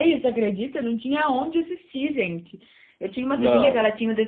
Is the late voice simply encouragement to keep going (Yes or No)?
Yes